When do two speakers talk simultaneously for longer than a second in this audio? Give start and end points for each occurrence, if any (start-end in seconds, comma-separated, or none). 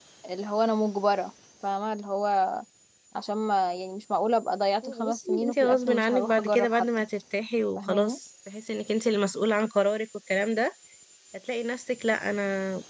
5.1-6.8